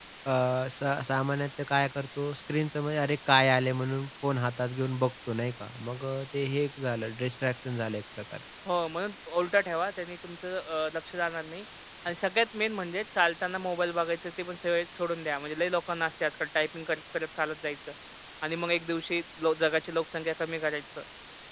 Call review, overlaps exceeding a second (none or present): none